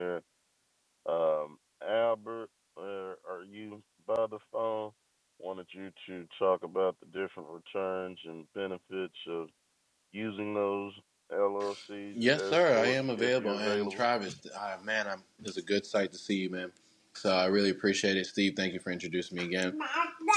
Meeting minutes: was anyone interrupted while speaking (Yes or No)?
Yes